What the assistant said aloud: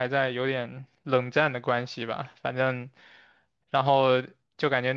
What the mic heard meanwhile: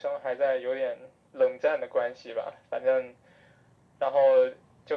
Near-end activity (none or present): none